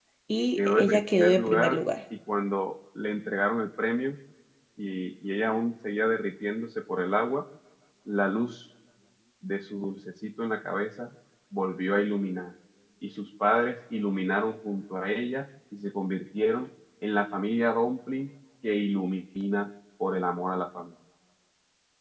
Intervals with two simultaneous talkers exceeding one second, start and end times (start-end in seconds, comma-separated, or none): 0.6-1.8